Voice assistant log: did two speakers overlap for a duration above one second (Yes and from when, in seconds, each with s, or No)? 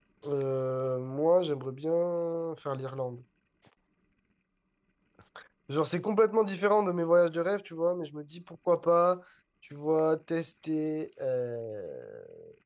No